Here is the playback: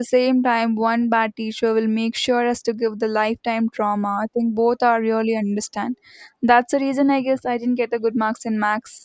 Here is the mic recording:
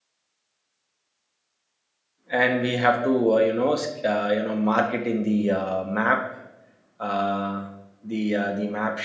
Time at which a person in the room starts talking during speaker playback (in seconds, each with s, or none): 2.3 s